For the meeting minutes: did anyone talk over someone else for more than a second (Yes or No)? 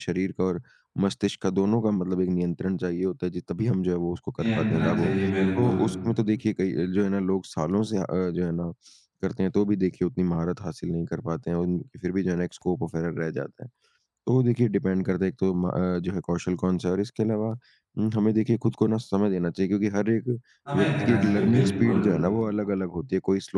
Yes